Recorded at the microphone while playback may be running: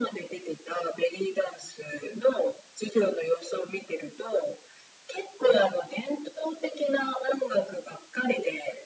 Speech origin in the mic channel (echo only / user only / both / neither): echo only